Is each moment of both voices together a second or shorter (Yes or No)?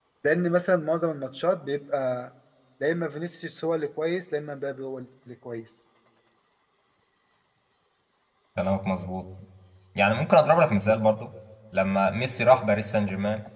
Yes